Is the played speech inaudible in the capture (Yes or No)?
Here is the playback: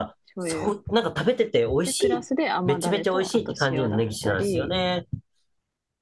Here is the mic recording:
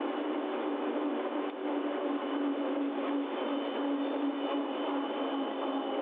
Yes